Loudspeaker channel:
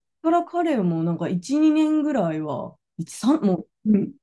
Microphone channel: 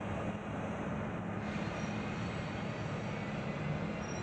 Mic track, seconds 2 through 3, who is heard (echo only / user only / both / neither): neither